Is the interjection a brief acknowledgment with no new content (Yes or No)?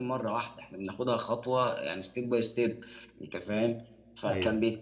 Yes